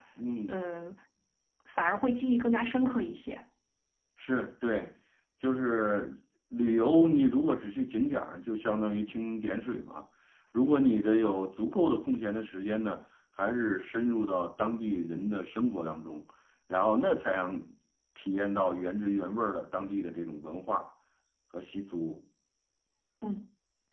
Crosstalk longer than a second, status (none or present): none